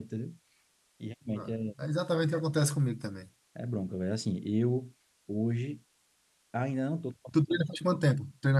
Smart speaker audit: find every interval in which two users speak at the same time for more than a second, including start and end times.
none

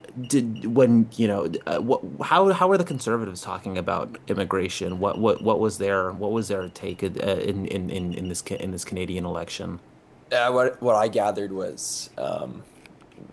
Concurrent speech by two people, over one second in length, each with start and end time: none

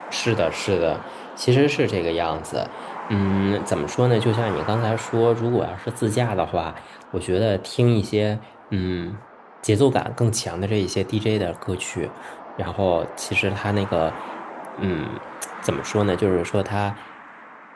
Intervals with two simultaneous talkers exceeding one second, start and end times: none

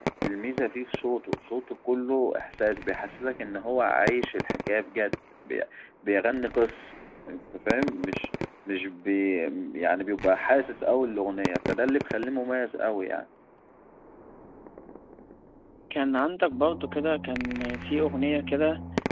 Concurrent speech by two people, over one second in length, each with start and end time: none

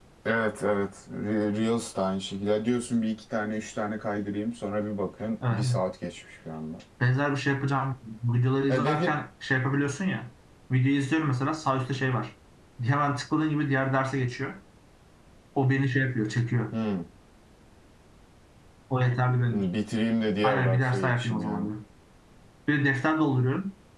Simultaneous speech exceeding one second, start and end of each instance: 20.4-21.7

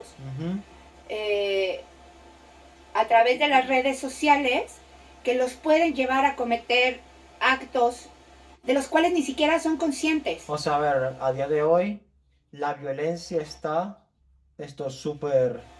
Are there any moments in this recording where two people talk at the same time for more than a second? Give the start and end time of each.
none

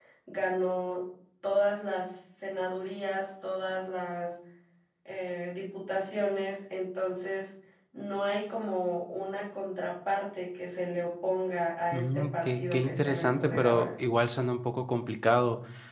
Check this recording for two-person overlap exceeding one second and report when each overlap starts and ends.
11.9-13.9

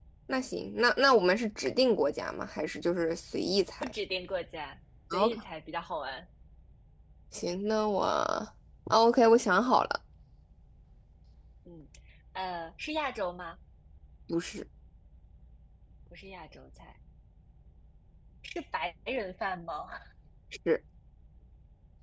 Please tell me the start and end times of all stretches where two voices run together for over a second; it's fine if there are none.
none

